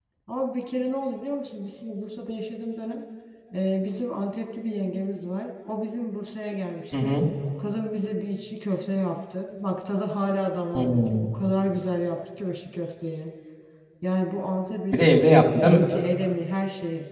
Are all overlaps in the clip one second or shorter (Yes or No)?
Yes